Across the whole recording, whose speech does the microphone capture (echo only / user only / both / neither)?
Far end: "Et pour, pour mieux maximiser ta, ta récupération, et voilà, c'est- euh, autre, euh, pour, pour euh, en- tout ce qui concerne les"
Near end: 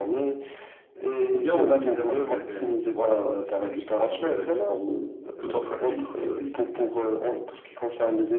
both